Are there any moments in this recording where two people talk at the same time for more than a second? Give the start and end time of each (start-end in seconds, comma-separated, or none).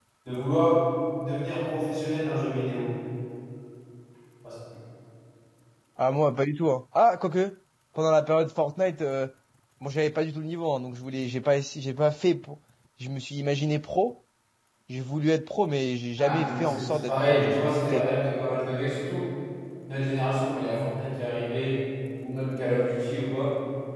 16.2-18.0